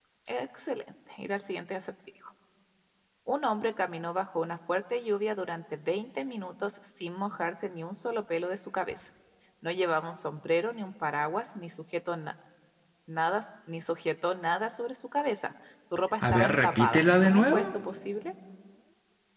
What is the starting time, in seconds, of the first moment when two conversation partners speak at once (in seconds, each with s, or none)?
16.2 s